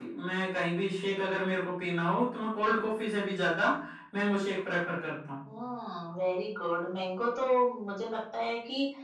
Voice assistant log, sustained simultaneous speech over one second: none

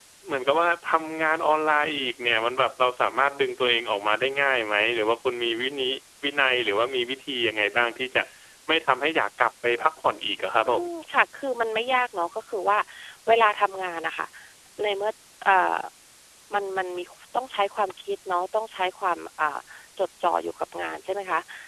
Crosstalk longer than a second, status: none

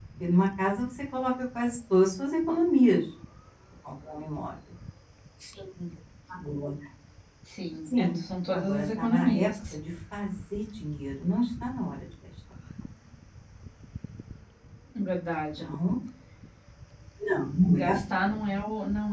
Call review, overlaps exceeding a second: present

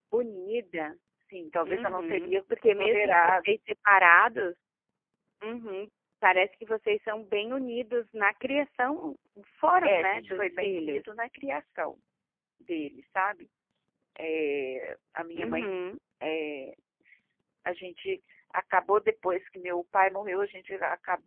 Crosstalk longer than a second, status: present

